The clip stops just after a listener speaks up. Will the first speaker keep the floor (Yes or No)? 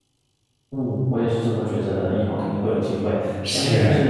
Yes